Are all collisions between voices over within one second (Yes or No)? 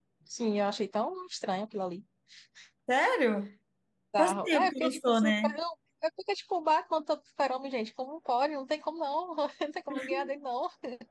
No